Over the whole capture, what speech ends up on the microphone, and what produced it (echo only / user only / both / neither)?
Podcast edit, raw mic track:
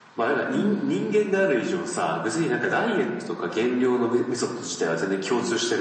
both